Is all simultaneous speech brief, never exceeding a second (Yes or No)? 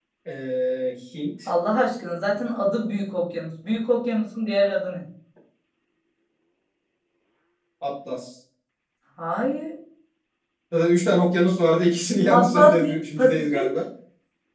No